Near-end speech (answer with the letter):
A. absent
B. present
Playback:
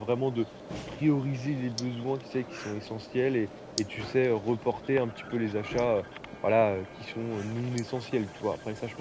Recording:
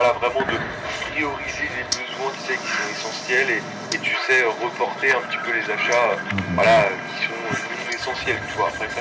B